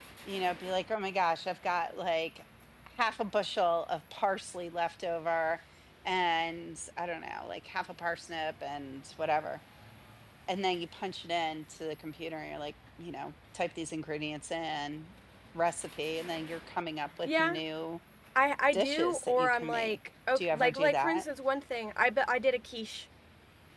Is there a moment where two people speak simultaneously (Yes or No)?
Yes